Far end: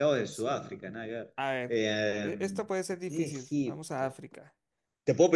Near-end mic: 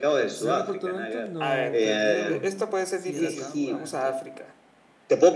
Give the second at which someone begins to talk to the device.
0.3 s

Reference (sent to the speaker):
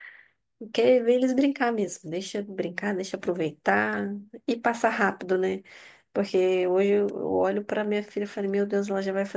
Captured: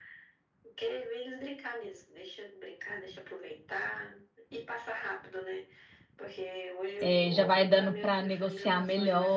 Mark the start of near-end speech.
7.0 s

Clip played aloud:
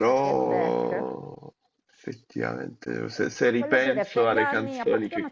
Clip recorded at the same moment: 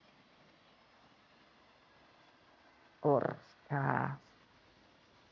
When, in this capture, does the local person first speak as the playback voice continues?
3.0 s

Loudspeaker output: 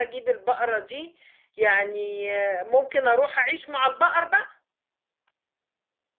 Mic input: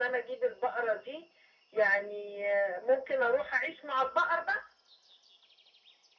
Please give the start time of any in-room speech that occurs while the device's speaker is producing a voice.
none

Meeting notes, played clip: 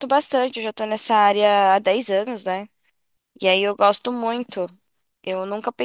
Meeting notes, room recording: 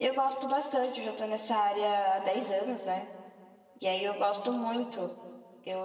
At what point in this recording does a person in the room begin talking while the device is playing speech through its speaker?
none

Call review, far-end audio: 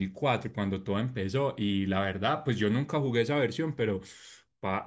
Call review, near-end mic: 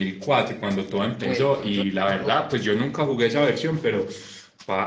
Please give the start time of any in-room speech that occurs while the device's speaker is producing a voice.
1.0 s

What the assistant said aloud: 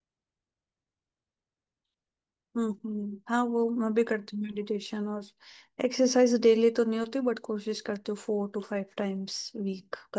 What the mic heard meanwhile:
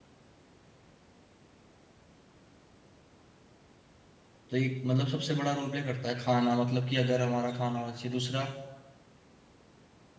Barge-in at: 4.5 s

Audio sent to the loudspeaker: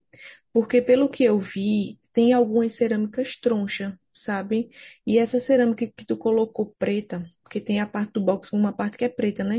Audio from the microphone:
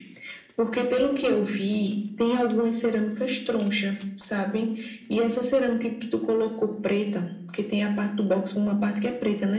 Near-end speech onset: none

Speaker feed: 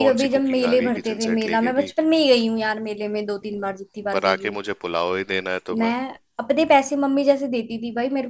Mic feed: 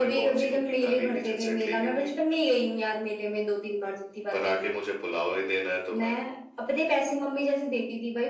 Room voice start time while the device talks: none

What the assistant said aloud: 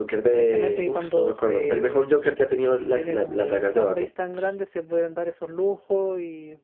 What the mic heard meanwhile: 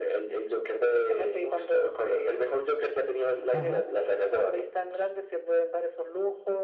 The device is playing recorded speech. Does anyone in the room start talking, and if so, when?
3.5 s

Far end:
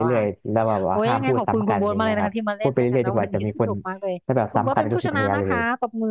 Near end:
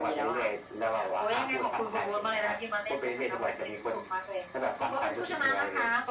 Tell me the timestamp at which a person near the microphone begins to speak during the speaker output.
none

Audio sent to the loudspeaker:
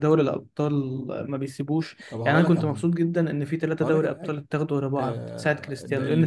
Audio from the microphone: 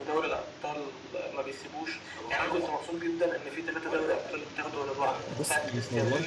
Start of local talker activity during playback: 5.3 s

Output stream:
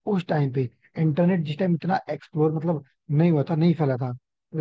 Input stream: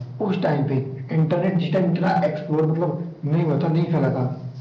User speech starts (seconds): none

